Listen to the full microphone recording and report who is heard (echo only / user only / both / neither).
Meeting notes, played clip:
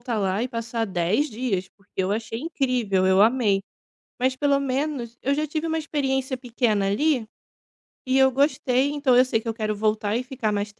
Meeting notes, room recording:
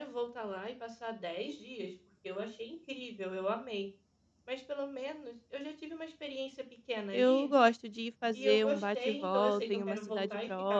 both